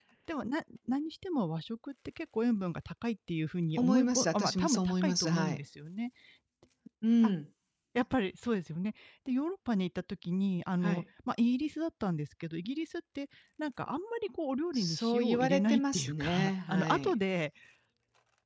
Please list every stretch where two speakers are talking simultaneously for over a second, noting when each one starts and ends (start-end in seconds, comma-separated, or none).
3.8-5.6, 14.7-17.1